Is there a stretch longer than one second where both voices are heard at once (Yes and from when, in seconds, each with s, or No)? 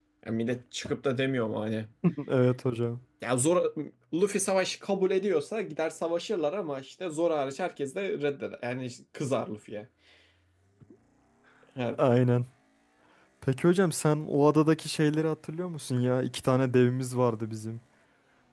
No